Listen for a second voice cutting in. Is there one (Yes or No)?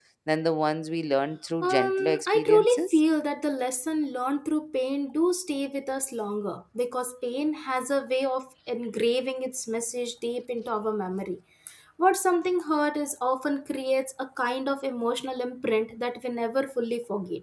Yes